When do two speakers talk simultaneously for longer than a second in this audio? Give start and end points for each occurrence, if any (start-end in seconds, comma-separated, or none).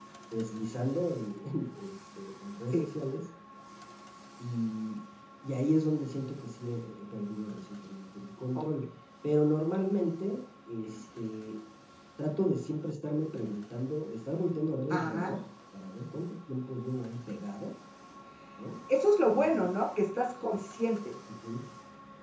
none